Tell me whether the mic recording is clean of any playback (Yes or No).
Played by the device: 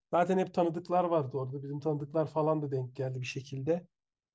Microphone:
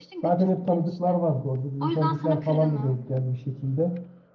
No